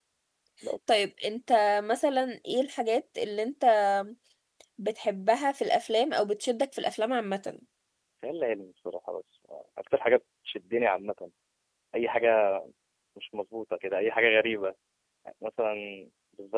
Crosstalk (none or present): none